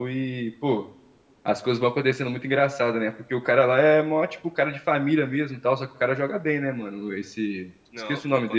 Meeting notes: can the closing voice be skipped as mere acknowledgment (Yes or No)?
No